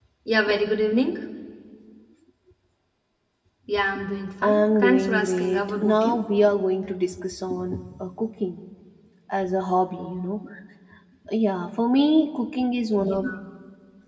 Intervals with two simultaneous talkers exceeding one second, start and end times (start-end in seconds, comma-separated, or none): 4.4-6.2